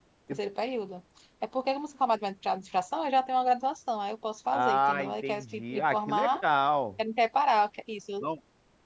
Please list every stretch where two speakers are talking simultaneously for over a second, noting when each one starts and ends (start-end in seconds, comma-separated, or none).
4.5-6.4